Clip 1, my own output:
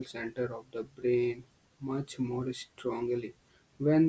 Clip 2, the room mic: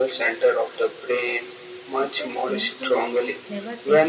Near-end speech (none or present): present